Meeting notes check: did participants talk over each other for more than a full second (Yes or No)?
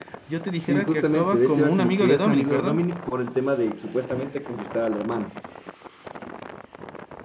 Yes